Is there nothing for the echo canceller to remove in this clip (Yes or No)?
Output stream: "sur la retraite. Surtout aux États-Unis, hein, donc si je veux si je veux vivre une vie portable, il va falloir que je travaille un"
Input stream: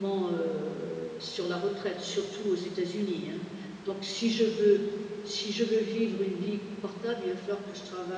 No